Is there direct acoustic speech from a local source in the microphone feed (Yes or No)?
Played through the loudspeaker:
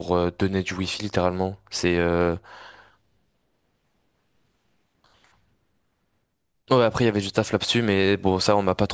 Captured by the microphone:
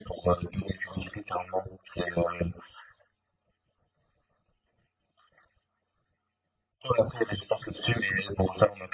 No